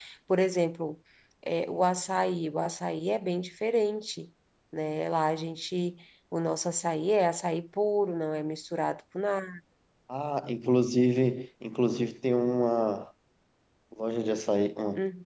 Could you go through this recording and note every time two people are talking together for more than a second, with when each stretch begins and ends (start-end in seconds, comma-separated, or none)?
none